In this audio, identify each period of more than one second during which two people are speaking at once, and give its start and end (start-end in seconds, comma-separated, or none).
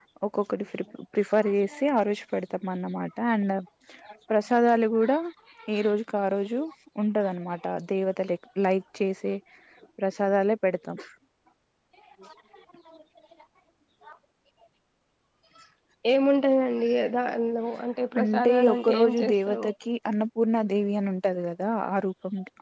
18.2-19.7